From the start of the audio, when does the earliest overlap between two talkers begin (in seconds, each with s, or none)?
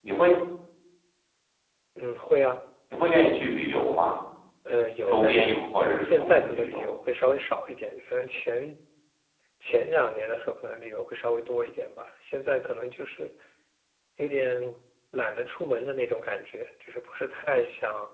5.1 s